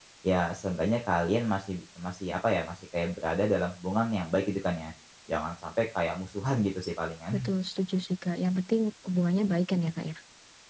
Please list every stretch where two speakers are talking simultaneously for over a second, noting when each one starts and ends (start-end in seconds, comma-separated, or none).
none